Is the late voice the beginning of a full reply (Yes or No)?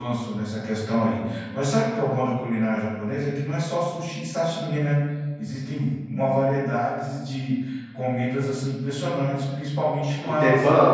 No